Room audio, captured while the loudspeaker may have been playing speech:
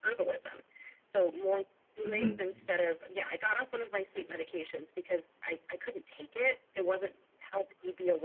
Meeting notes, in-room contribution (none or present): present